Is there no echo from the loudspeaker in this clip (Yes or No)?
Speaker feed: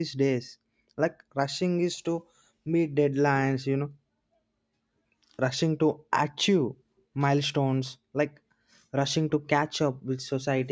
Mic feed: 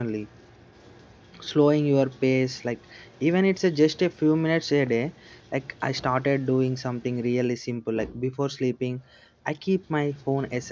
Yes